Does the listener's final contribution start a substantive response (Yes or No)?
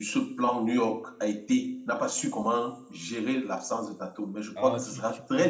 Yes